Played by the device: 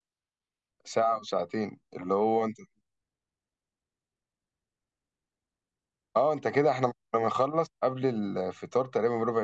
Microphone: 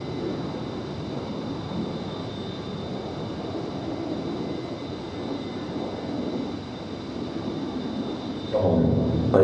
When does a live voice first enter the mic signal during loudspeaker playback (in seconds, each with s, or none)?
8.5 s